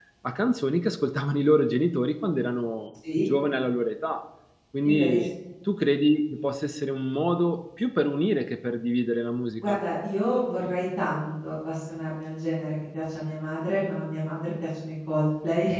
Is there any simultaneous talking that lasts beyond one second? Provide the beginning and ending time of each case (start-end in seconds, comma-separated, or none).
none